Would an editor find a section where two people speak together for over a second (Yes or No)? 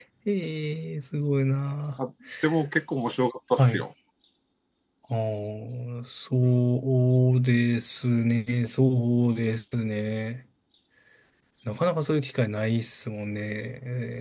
No